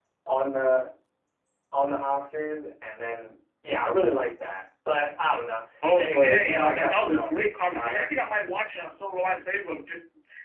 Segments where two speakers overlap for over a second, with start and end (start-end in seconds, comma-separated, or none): 6.0-7.3